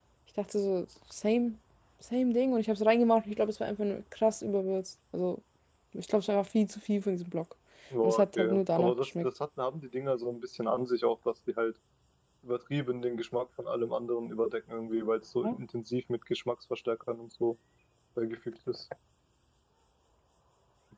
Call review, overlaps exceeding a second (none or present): present